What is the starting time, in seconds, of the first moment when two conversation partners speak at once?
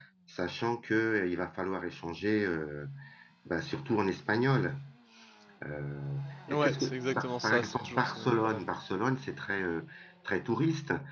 6.5 s

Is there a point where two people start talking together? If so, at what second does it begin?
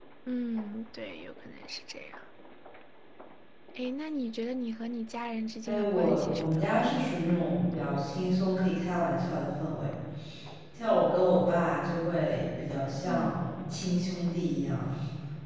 5.6 s

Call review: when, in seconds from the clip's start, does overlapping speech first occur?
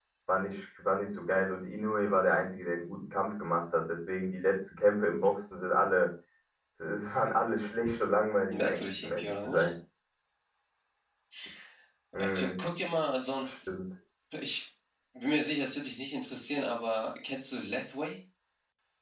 8.5 s

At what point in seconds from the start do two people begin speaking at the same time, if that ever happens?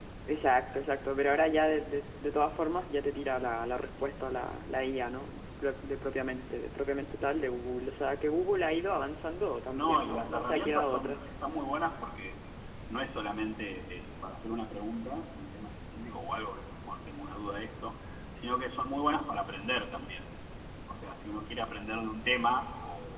9.7 s

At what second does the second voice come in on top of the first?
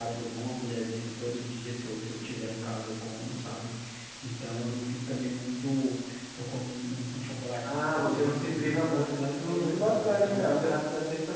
7.6 s

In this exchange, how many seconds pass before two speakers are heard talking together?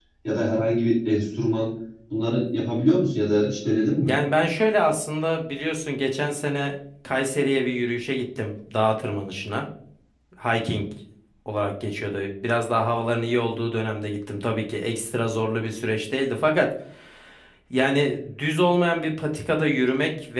none

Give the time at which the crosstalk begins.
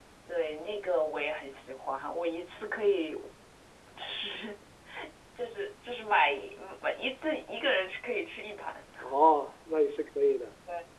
none

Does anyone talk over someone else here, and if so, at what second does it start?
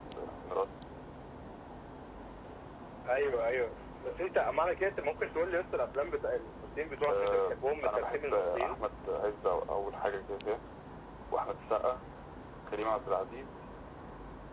7.1 s

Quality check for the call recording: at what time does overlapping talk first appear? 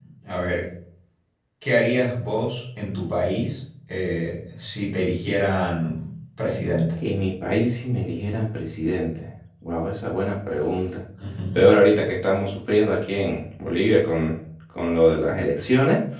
none

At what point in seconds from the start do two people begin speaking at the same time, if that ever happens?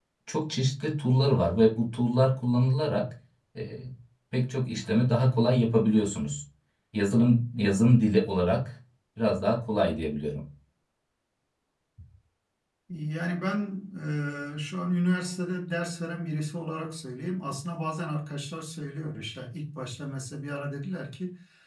none

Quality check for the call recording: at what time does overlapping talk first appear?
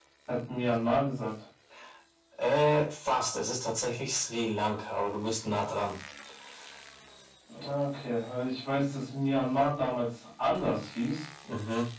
none

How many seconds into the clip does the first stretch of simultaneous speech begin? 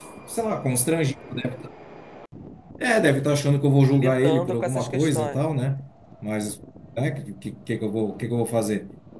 3.9 s

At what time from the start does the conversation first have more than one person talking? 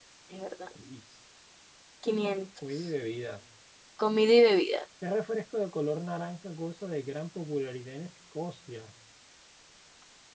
none

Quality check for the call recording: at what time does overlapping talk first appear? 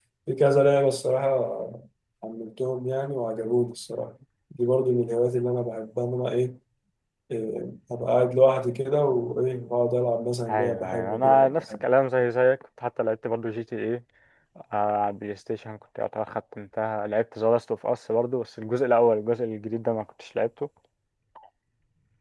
10.5 s

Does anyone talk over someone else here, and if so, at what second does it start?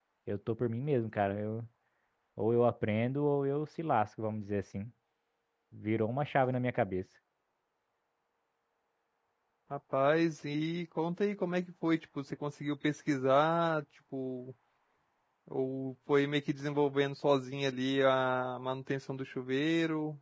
none

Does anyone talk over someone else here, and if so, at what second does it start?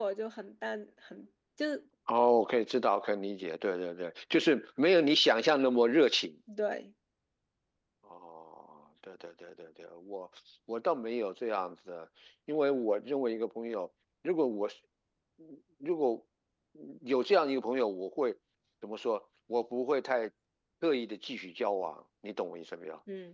none

